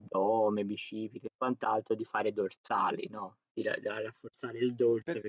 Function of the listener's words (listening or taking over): listening